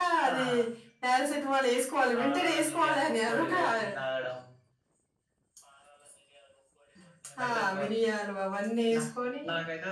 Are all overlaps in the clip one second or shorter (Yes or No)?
No